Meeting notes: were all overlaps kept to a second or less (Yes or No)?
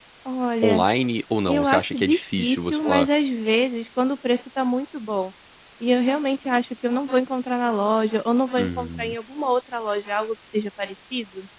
No